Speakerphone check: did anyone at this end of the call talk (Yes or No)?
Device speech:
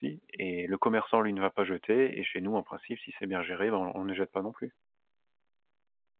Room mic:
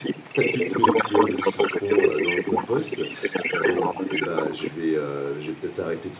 Yes